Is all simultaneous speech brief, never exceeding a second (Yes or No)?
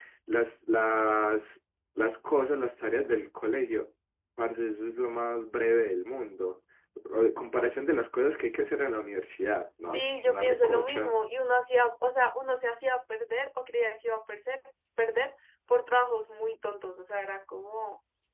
No